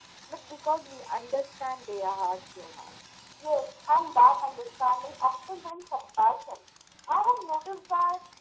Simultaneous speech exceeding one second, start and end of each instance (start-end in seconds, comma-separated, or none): none